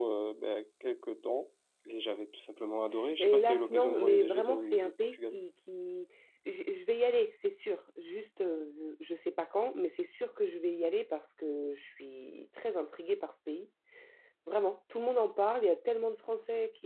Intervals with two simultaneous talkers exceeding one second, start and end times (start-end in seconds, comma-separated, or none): 3.2-5.4